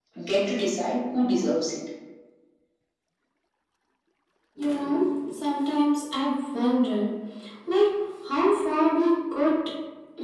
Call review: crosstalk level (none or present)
none